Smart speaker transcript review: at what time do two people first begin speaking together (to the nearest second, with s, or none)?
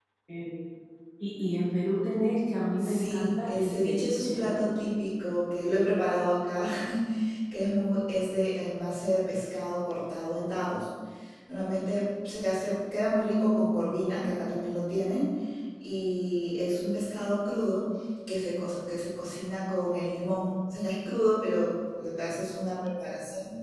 3 s